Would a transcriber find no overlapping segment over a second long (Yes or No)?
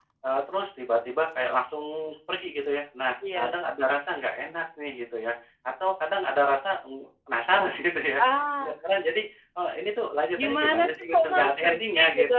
No